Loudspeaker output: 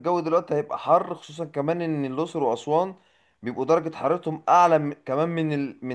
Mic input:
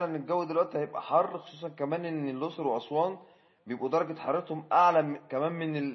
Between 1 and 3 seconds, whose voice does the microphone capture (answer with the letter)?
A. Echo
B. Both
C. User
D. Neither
A